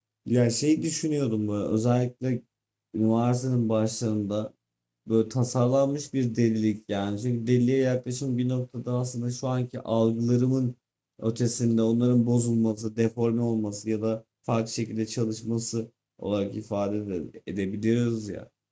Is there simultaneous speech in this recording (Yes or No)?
No